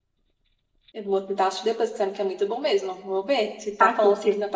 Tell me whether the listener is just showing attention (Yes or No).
Yes